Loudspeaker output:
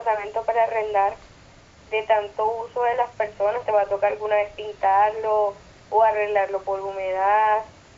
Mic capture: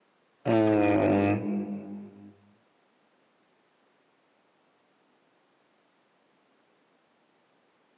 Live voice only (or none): Mm,